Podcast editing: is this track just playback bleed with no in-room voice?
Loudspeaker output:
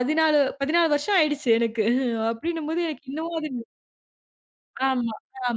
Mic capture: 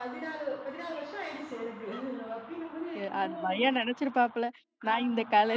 No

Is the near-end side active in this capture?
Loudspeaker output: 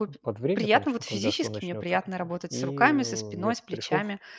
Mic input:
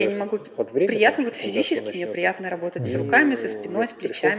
Yes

